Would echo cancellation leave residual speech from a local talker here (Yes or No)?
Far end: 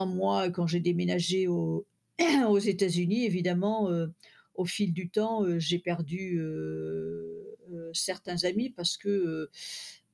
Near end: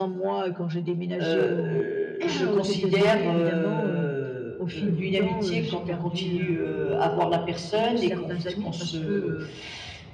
Yes